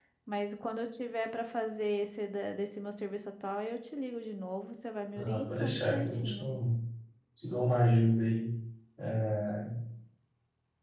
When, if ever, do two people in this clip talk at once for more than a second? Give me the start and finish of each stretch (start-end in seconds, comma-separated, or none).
5.2-6.5